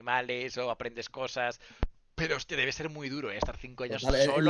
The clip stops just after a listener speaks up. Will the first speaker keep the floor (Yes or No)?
No